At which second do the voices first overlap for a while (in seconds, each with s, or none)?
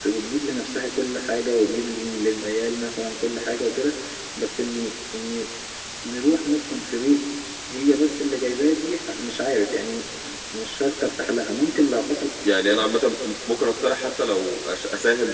none